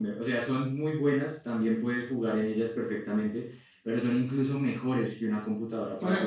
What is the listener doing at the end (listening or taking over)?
listening